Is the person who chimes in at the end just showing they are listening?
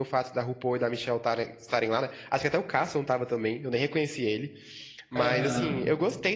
Yes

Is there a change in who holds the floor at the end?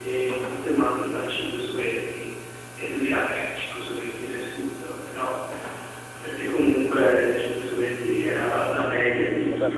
Yes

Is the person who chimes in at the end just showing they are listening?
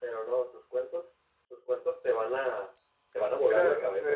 No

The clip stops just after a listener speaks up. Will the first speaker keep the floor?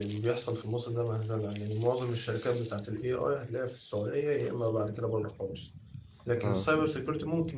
Yes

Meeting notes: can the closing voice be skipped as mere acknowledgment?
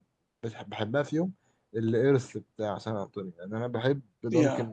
Yes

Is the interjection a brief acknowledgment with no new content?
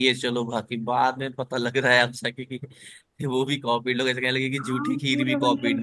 No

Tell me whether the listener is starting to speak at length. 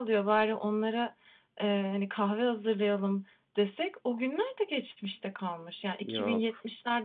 No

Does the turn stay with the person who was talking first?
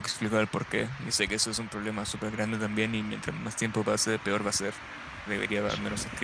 Yes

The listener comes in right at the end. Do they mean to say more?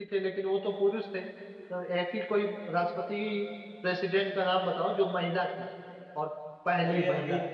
Yes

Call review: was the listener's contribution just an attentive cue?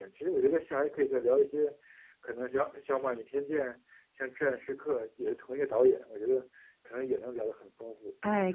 No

